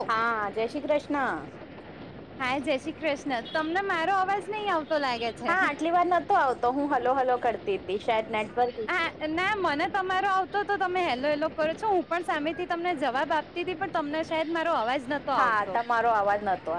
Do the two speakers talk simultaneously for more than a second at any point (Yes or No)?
No